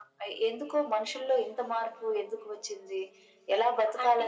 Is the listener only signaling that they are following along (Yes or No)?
No